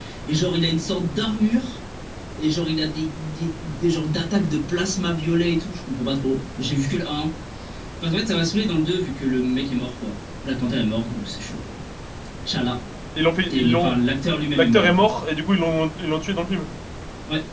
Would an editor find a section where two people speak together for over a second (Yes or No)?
No